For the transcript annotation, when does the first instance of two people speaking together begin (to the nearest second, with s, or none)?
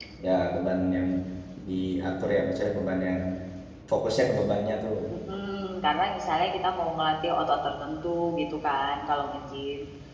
none